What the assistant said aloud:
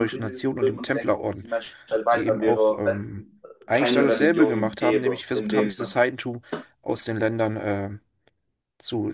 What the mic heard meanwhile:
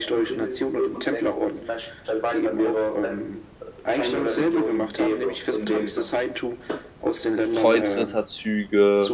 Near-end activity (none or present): present